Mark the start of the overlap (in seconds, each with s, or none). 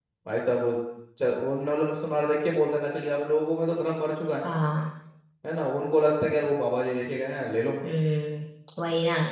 none